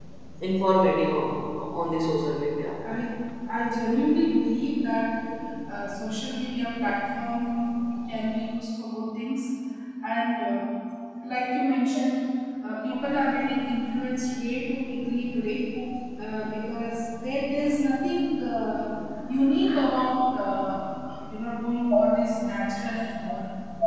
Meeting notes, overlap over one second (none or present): none